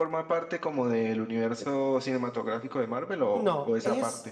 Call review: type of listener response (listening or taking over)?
taking over